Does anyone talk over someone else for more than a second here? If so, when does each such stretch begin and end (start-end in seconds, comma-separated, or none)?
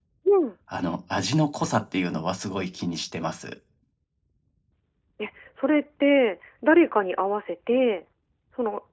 none